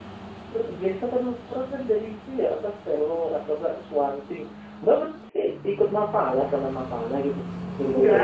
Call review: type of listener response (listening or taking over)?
taking over